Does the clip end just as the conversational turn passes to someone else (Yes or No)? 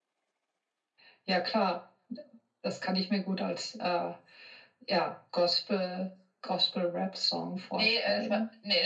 Yes